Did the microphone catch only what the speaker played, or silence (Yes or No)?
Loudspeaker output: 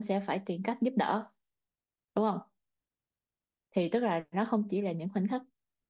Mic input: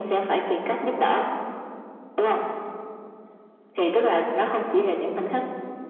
Yes